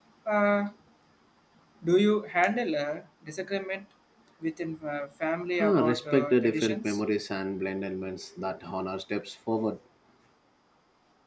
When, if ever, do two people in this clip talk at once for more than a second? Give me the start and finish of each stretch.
5.6-7.0

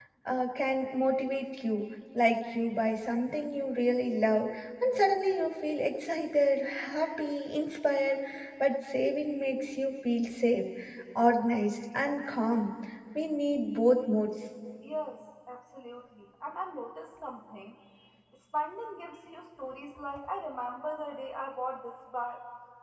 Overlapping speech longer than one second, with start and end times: none

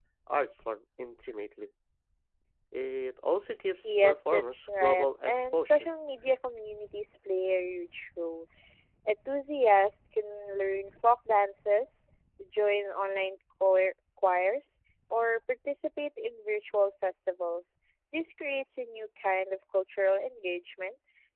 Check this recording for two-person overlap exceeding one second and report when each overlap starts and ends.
3.8-5.9

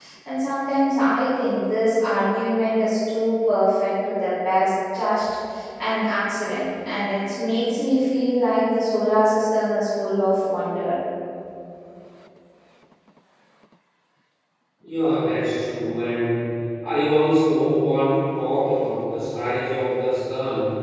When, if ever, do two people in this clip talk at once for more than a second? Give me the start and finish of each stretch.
none

